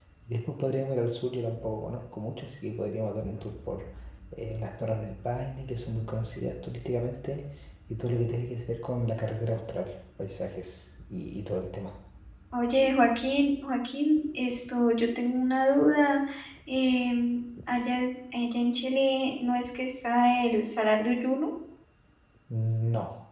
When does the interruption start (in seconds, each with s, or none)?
none